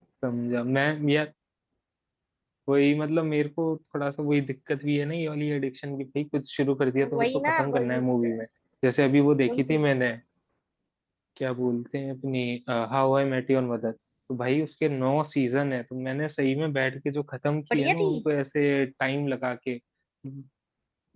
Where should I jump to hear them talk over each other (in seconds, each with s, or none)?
7.1 s